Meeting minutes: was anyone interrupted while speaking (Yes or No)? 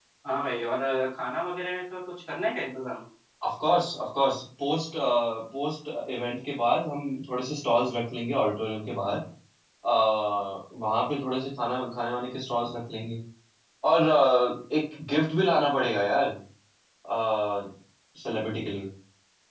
No